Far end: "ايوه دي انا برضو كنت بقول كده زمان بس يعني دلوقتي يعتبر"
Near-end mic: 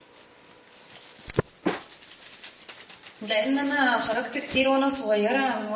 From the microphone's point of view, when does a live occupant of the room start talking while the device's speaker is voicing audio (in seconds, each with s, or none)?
3.2 s